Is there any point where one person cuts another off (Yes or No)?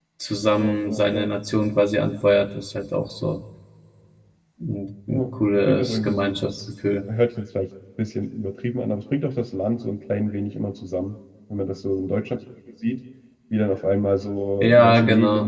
Yes